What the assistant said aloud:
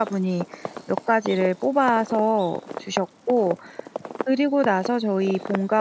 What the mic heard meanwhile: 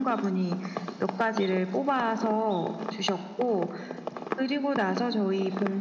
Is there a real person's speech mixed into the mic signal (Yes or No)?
No